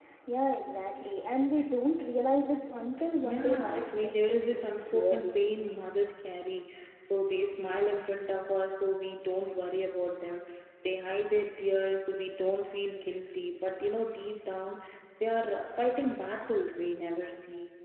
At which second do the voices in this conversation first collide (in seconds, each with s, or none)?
3.2 s